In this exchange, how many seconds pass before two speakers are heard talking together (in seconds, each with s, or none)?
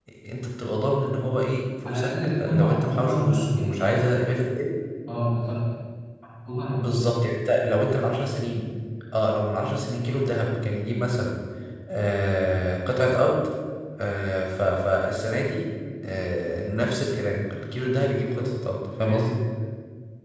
1.8 s